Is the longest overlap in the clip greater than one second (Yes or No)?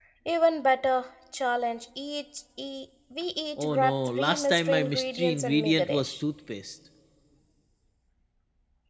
Yes